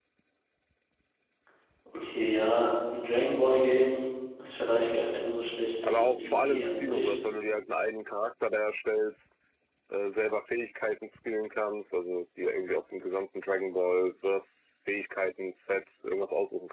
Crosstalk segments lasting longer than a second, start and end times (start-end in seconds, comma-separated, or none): 5.8-7.1